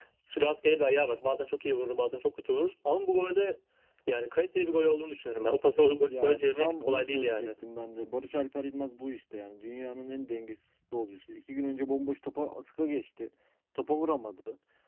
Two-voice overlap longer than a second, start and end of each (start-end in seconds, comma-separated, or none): 6.1-7.5